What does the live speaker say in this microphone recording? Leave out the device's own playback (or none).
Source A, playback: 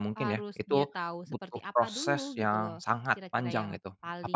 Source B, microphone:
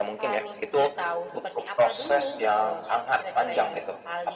none